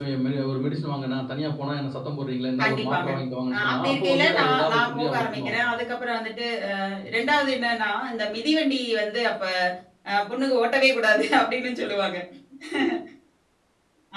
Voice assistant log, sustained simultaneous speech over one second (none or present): present